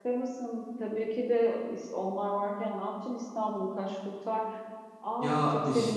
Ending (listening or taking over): taking over